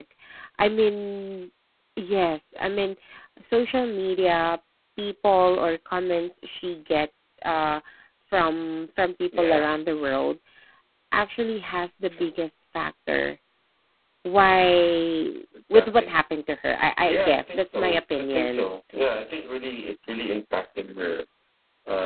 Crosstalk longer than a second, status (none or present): present